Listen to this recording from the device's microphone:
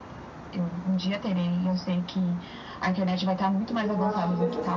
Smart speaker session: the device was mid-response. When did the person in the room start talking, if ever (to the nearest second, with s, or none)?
4 s